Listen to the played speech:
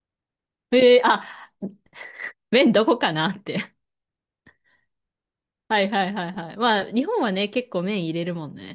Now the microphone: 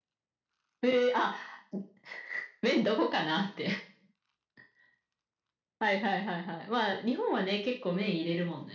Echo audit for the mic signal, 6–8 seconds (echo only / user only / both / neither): echo only